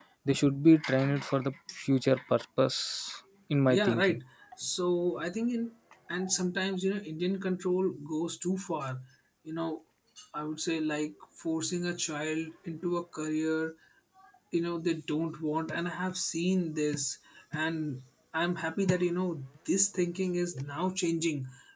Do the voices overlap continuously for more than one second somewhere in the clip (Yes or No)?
No